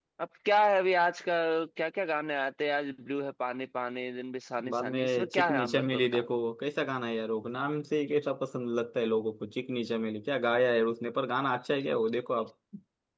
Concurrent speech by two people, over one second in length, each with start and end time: 4.7-6.2

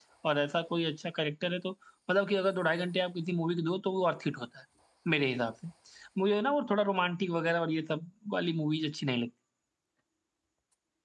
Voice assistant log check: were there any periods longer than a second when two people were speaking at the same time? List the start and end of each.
none

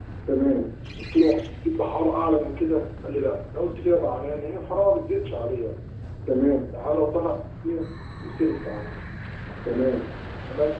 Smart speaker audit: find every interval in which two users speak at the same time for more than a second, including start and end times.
none

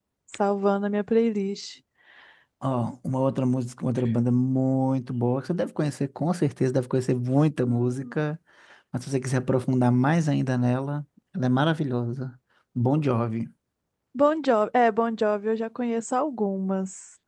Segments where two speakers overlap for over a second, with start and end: none

